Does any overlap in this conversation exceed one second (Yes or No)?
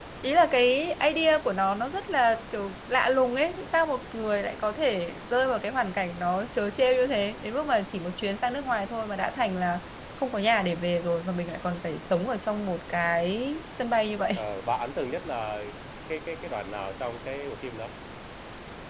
No